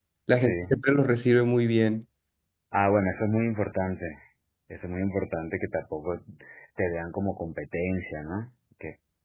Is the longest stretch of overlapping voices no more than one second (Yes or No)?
Yes